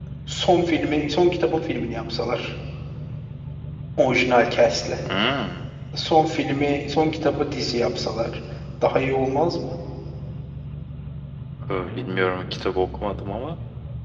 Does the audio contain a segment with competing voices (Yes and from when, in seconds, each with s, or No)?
No